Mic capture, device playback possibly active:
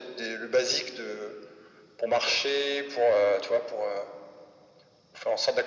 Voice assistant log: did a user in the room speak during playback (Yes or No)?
No